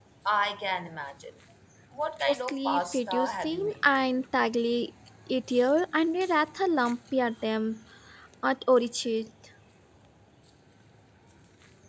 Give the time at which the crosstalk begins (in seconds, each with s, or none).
2.2 s